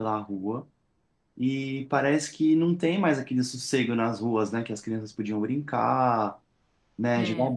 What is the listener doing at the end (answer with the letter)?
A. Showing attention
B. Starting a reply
A